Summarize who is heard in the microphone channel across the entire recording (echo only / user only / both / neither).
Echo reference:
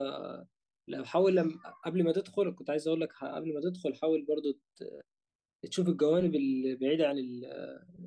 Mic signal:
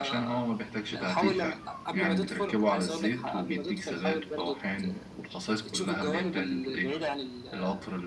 both